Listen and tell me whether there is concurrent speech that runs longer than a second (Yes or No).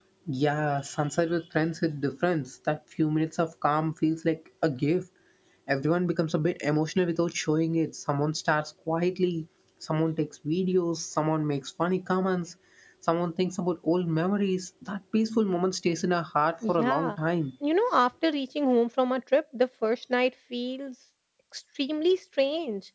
No